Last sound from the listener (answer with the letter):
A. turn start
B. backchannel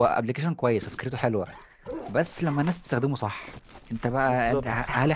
B